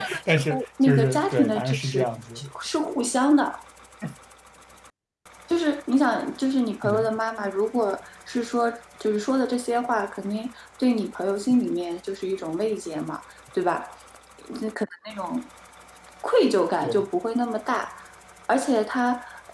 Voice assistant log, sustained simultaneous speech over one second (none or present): present